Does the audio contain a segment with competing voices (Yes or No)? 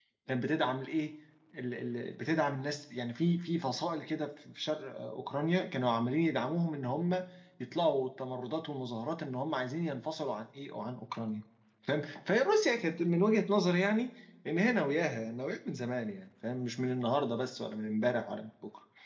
No